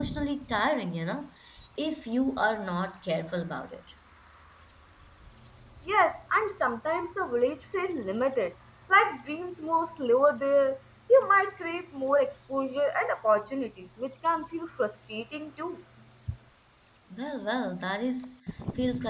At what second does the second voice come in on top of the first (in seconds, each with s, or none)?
none